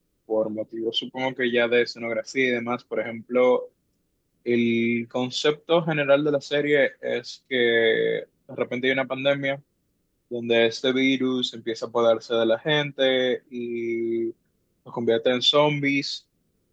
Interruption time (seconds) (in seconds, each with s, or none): none